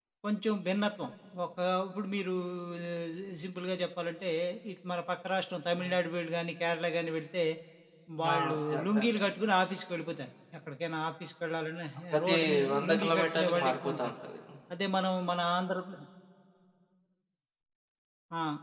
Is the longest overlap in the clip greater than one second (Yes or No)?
Yes